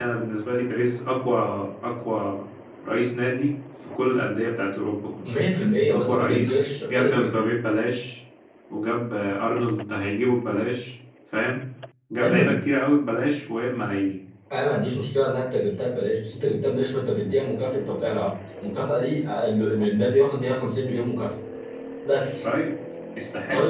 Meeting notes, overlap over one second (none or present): present